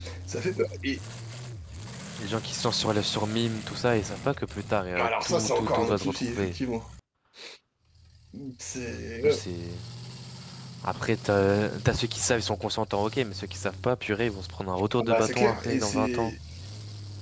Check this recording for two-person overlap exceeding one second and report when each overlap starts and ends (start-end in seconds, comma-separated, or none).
5.0-6.6, 15.0-16.3